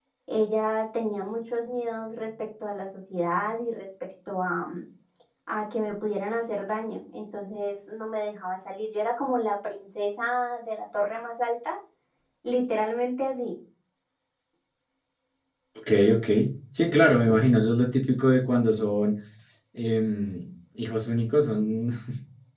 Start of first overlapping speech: none

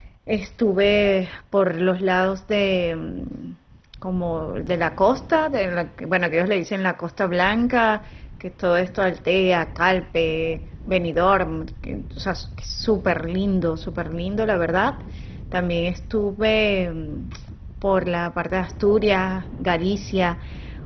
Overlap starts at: none

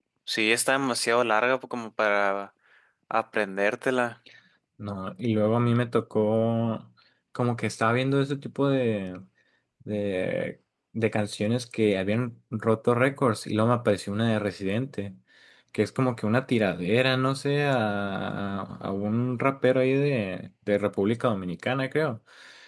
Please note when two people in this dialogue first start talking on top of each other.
none

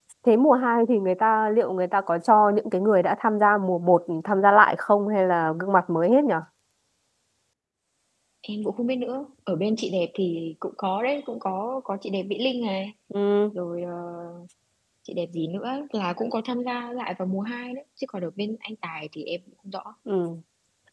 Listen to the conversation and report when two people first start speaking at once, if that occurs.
none

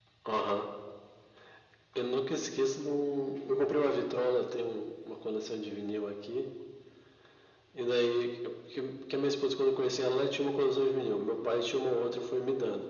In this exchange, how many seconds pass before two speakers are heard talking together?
none

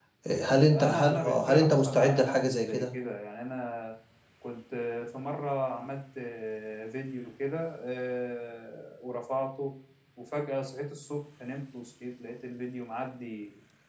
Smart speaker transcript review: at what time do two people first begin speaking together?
0.7 s

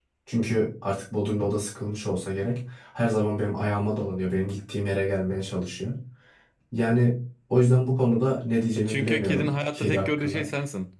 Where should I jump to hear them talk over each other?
8.8 s

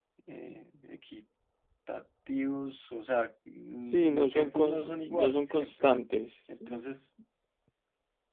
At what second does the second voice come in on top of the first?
3.8 s

